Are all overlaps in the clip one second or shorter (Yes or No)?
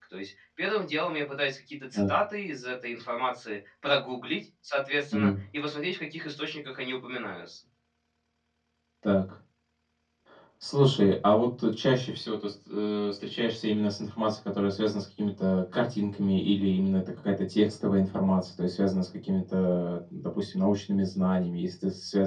Yes